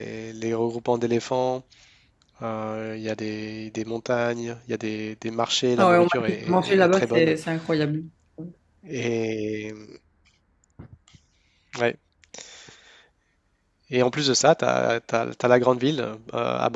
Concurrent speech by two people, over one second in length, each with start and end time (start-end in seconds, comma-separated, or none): 5.8-7.3